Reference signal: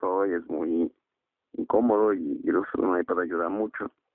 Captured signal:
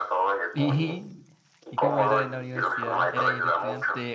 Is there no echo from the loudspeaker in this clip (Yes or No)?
No